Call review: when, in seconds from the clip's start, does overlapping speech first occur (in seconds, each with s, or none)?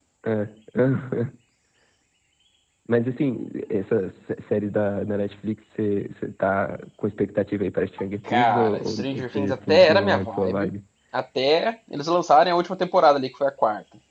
8.2 s